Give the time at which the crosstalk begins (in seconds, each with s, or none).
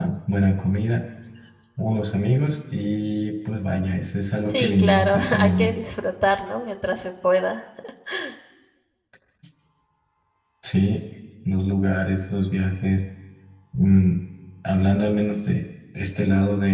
4.5 s